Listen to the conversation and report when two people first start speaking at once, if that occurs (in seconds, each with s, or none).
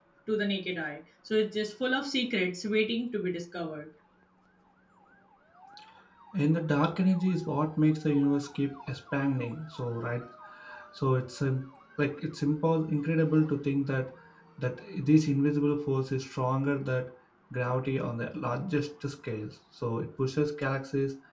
none